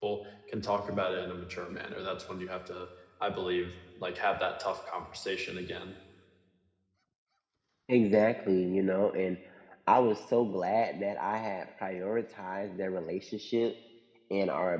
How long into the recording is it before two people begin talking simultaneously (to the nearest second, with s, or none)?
none